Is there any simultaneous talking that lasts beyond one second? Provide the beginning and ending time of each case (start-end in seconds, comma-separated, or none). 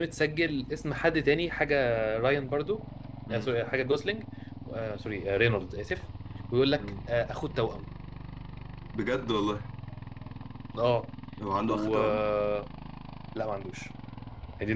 none